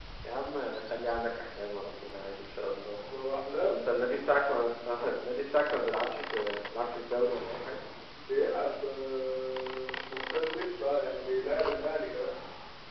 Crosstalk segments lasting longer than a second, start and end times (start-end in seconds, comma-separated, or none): none